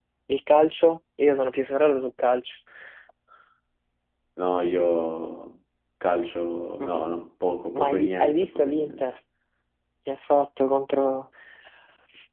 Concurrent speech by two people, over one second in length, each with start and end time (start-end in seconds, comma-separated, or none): 7.8-9.0